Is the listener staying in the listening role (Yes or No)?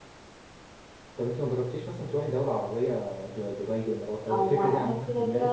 No